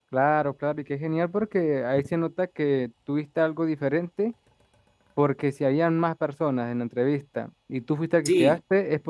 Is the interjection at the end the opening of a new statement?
No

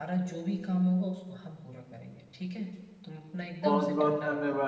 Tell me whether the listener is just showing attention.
No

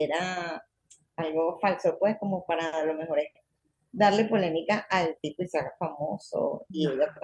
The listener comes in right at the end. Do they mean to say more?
No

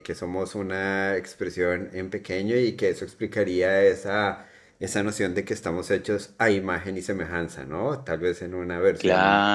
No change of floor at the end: No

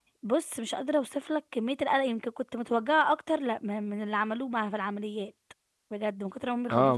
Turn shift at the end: Yes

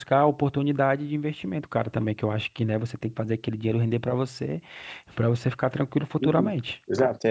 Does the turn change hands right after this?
Yes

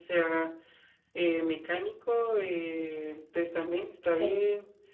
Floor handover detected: No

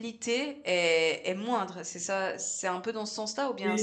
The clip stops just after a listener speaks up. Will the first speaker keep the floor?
No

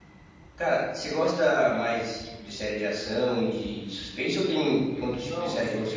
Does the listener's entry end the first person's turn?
Yes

